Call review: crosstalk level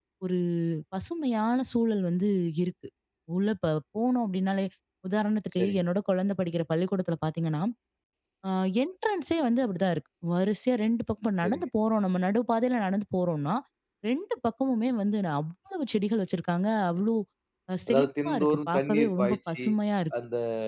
present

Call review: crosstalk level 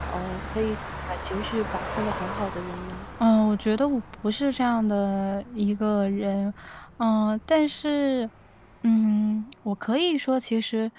none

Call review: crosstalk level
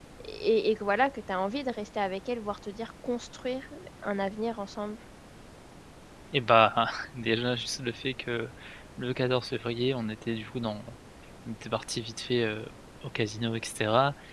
none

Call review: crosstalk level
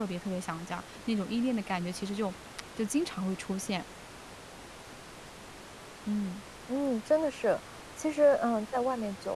none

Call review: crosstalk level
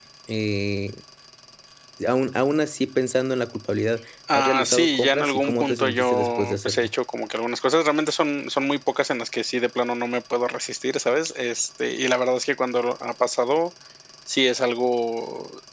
present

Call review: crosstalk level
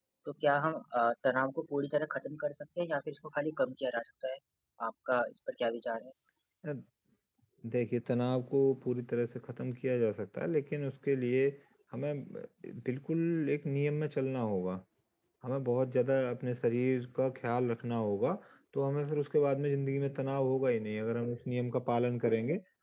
none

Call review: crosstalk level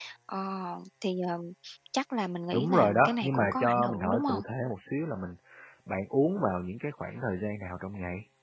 present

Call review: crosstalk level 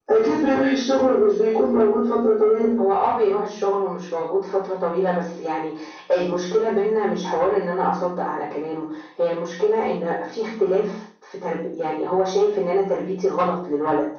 none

